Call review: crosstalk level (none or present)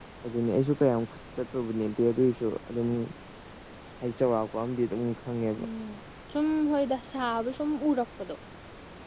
none